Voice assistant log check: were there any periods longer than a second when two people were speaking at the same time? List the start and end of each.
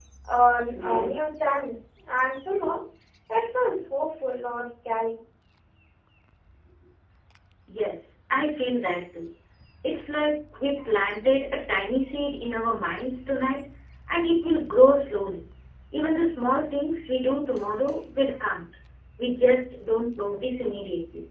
none

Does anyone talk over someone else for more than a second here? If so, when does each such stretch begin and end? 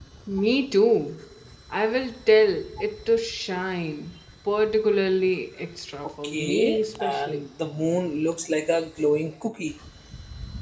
6.2-7.5

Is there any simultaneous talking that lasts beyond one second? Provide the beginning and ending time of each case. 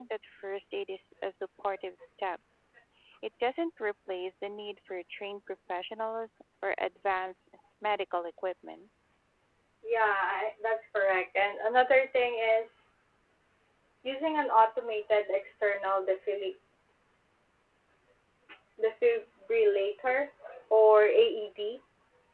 none

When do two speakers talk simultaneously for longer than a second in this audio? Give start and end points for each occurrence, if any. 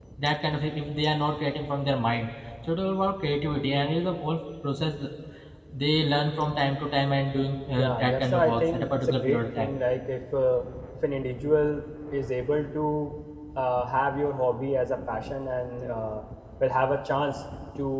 7.8-9.8

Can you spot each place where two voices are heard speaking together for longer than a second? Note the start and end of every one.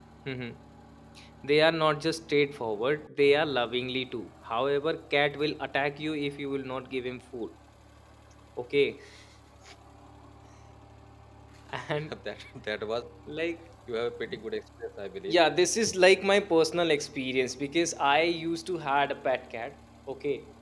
none

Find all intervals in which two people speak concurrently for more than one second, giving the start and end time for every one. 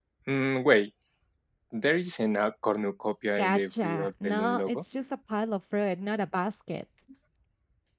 3.4-4.8

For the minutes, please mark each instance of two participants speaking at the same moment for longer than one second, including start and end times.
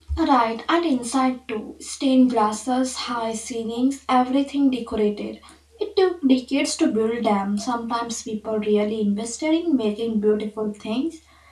none

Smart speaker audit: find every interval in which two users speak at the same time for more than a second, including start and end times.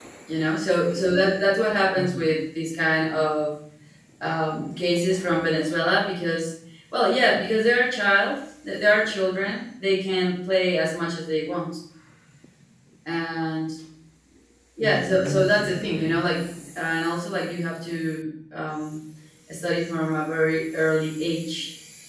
14.8-16.2

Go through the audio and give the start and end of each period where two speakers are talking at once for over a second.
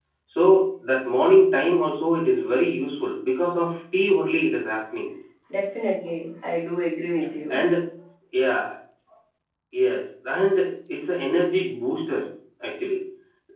none

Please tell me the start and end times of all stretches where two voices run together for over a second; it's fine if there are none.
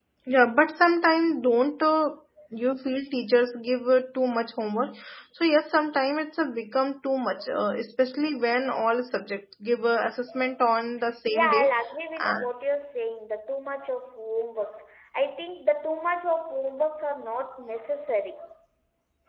none

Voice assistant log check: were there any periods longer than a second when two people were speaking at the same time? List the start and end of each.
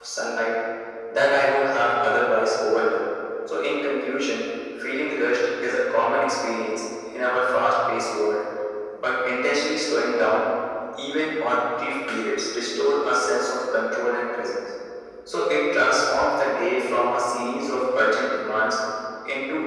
none

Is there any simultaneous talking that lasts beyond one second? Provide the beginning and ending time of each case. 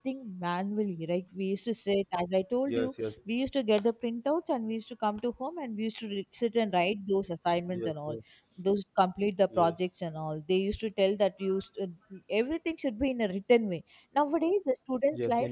none

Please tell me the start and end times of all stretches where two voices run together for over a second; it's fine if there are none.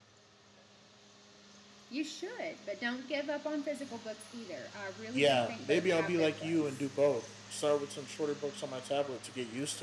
5.1-6.8

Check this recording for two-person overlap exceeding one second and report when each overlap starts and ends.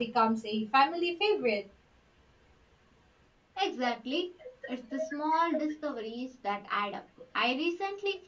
none

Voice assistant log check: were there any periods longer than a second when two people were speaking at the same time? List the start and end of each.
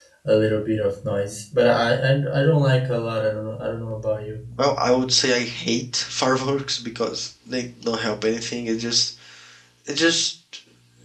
none

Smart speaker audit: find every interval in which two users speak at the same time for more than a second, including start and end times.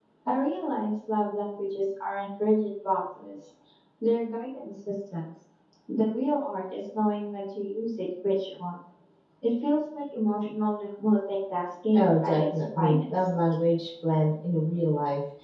11.9-13.3

